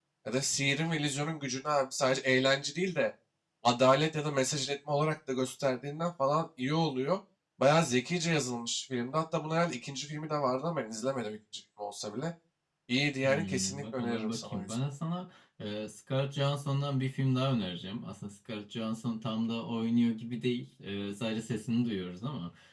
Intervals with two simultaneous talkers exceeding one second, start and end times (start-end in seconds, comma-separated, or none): 13.2-14.8